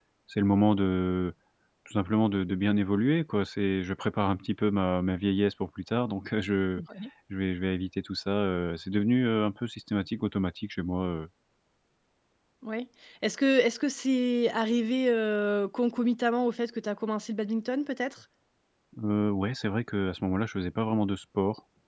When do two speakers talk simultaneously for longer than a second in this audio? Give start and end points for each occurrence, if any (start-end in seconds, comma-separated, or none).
none